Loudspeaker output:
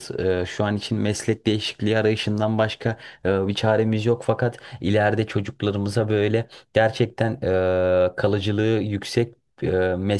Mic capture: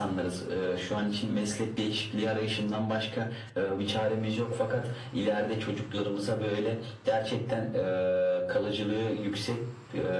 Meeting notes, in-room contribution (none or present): none